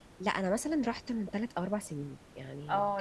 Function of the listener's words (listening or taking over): taking over